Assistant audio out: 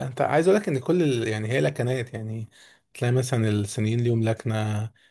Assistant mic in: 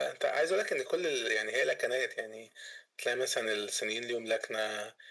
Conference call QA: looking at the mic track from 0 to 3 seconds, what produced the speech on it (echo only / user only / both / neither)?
echo only